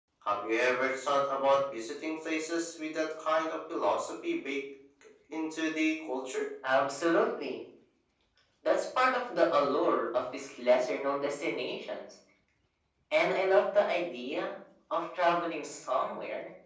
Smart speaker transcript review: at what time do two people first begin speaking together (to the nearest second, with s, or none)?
none